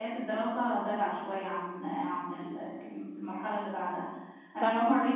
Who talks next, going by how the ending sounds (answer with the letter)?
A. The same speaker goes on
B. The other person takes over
A